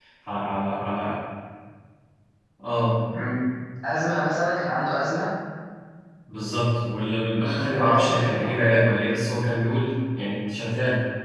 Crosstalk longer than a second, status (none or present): present